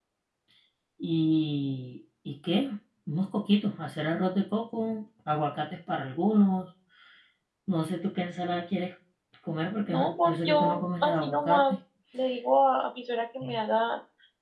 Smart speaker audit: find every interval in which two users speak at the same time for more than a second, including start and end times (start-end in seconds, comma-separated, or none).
9.8-11.6